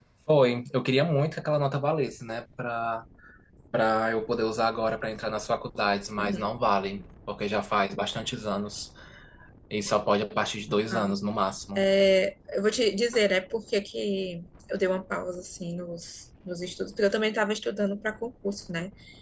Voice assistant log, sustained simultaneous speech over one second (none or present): none